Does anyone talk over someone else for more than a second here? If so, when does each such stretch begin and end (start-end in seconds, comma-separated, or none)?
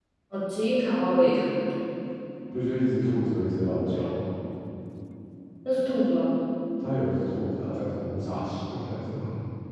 none